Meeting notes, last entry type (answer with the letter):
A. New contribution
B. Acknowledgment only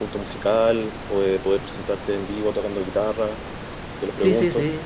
A